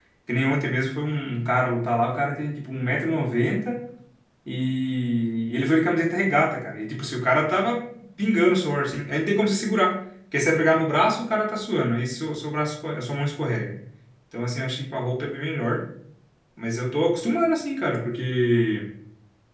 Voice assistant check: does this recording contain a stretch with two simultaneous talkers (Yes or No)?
No